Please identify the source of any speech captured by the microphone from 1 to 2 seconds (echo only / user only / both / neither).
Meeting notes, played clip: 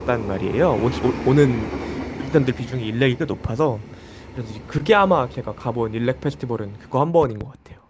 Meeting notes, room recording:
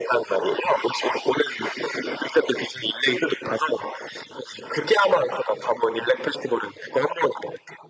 echo only